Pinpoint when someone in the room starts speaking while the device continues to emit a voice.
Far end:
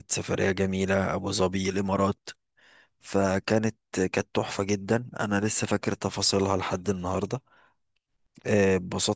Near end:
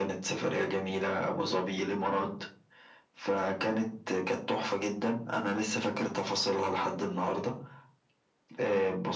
none

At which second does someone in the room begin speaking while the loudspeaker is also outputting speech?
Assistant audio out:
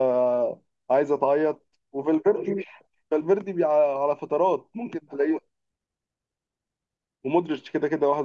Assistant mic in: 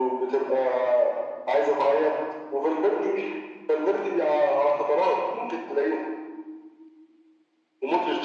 none

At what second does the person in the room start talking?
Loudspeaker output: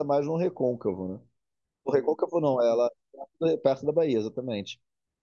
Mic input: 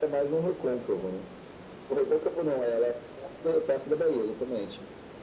none

